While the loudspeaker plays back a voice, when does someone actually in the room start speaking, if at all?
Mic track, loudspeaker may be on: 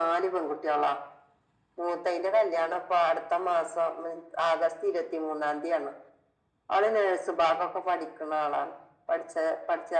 none

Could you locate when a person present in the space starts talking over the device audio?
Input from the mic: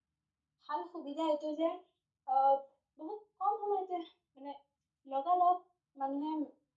1 s

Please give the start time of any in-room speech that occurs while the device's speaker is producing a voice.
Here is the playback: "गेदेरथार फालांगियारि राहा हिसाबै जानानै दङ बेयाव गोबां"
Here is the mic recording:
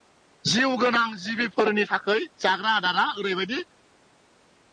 0 s

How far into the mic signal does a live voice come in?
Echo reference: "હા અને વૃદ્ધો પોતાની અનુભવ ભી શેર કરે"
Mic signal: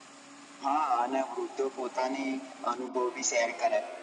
none

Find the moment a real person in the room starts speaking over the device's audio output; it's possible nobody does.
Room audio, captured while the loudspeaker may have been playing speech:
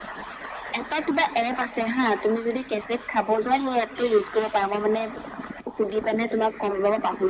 none

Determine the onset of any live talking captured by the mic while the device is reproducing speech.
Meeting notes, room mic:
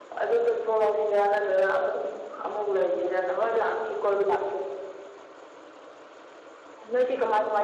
none

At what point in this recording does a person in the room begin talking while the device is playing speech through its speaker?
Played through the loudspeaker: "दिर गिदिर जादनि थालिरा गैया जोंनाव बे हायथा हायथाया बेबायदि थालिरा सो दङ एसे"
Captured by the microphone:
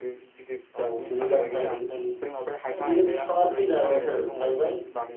1 s

